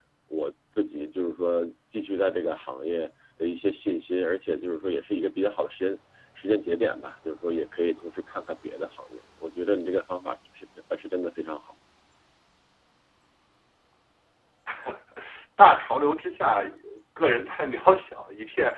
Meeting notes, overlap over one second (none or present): none